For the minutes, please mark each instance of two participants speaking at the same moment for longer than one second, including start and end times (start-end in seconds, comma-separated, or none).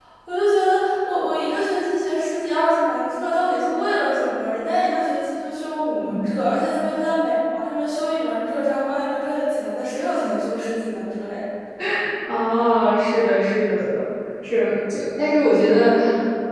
none